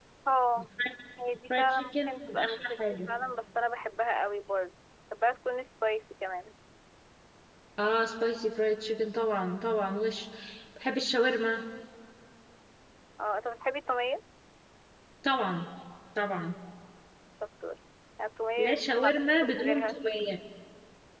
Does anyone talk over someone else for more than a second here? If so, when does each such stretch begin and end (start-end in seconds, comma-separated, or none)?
1.5-3.1, 18.6-20.0